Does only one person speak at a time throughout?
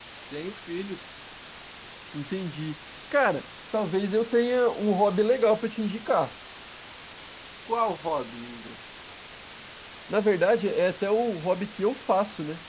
Yes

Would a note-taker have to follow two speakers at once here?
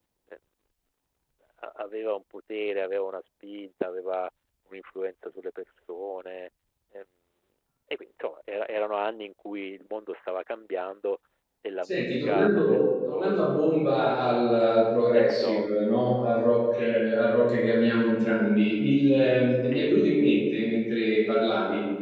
Yes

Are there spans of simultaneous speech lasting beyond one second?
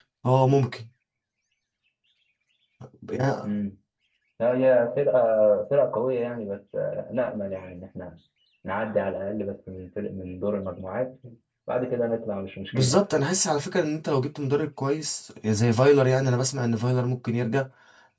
No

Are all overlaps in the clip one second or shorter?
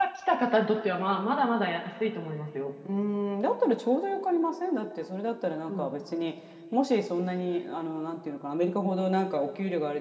Yes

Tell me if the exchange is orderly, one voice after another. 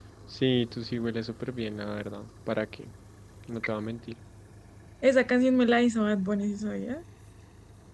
Yes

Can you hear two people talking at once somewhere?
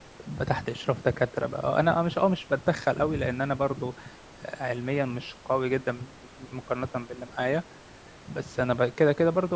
No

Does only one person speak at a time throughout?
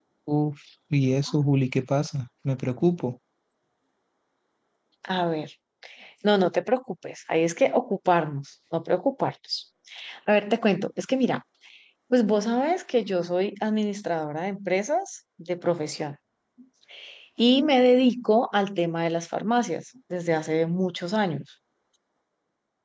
Yes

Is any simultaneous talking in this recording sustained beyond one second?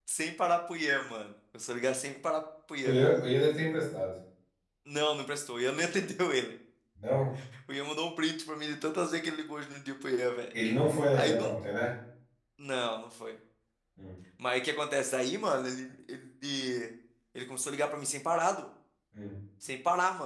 No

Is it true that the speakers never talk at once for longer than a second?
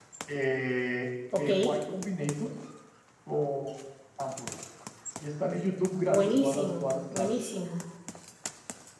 No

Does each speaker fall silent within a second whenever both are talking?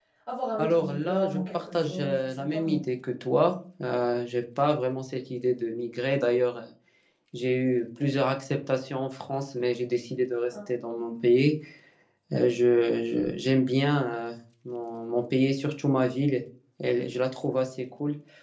No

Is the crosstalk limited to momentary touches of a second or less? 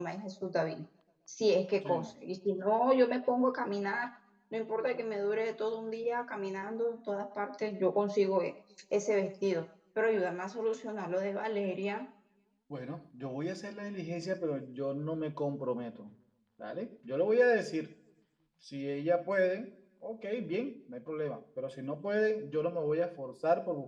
Yes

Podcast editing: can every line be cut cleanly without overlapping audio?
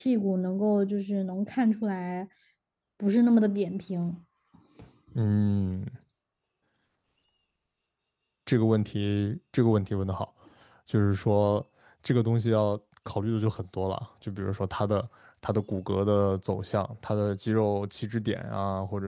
Yes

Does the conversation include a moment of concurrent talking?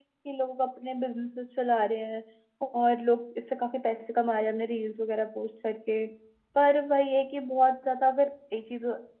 No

